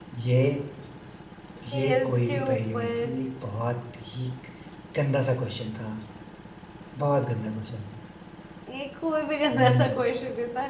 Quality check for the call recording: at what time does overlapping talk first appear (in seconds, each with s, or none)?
1.7 s